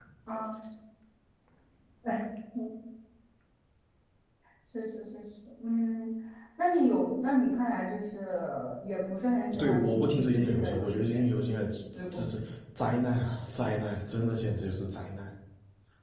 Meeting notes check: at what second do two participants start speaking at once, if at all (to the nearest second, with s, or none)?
10 s